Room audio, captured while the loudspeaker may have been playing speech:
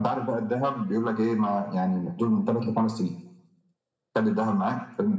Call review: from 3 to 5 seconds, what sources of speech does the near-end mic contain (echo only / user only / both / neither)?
echo only